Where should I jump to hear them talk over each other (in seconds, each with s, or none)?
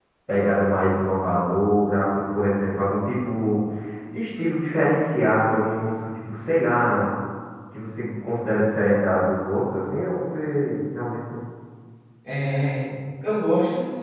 none